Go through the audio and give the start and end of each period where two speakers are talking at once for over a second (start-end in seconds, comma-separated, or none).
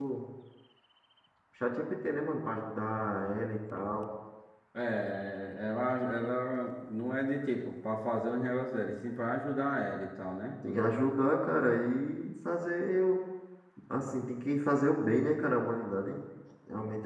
none